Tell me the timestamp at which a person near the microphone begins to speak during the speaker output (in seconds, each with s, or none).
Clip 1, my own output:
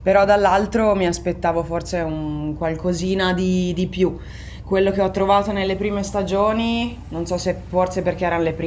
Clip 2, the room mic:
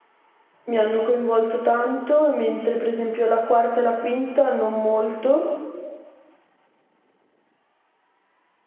0.7 s